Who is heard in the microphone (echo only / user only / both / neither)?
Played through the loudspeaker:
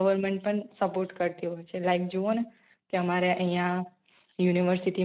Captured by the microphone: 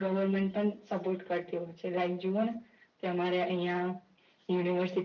echo only